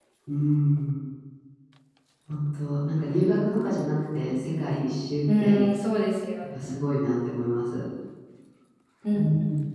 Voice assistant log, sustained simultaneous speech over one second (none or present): none